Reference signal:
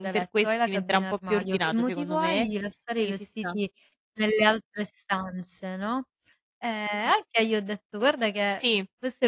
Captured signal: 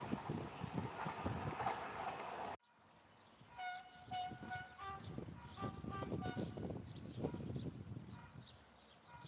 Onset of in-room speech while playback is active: none

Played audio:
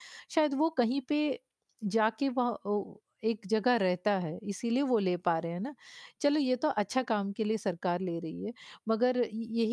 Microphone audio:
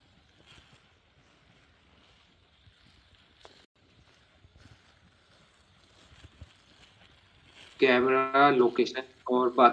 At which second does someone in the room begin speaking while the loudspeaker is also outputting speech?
8 s

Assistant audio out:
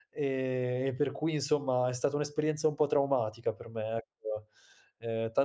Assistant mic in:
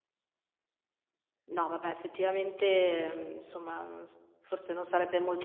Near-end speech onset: 1 s

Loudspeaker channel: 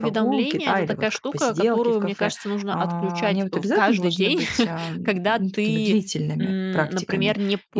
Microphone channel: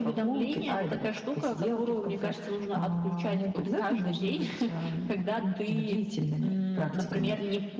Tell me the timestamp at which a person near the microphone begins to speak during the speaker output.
none

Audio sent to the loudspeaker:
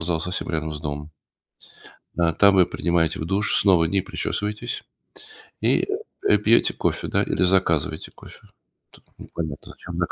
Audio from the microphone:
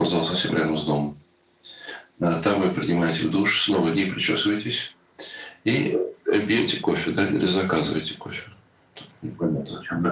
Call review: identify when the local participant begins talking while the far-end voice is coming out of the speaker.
none

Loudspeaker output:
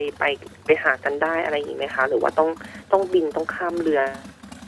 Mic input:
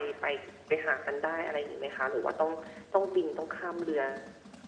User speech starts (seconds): none

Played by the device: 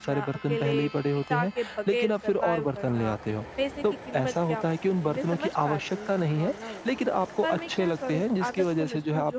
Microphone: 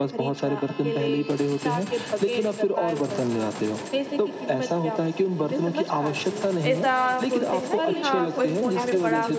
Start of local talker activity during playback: 7 s

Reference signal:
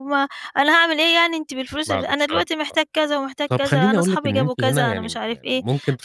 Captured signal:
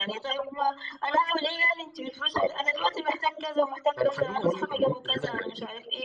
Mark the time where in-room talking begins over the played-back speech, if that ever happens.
none

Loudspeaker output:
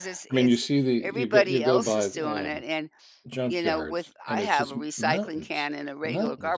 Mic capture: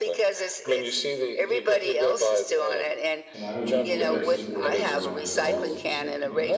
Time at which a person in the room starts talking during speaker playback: 3 s

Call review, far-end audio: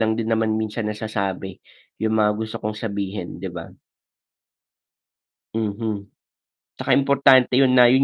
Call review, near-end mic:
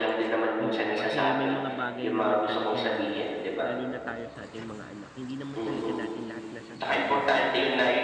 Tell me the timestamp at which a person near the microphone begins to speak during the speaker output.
1 s

